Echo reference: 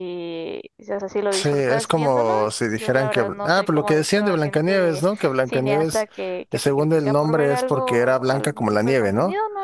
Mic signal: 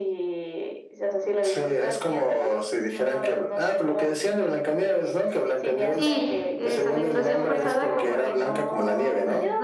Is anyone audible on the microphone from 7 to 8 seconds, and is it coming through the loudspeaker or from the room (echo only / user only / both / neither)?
both